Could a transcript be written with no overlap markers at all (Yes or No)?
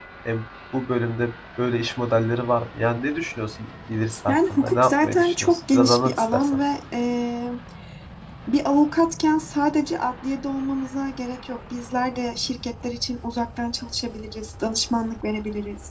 No